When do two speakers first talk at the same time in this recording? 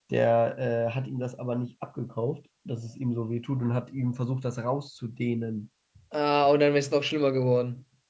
none

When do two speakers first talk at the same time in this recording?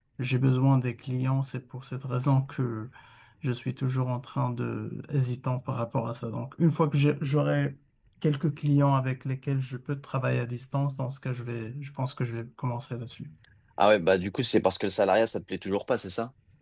none

